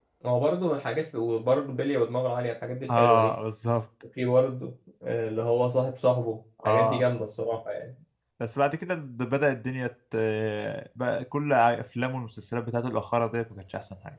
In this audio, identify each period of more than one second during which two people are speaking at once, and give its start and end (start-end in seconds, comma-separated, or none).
none